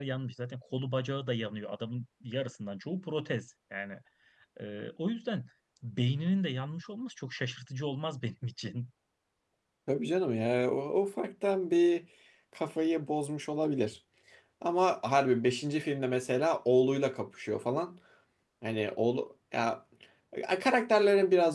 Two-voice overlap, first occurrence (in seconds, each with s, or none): none